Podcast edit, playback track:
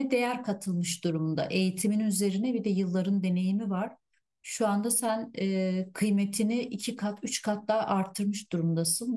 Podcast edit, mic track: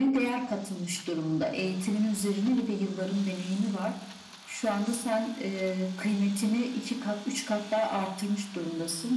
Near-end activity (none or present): none